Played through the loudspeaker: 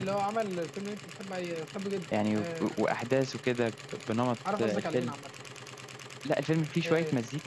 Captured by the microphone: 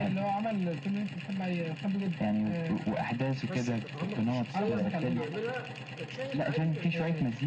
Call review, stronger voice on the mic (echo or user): echo